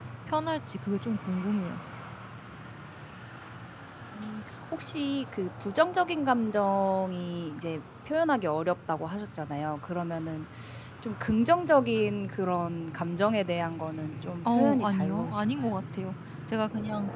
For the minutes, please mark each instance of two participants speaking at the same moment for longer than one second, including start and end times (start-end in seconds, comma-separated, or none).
14.6-15.8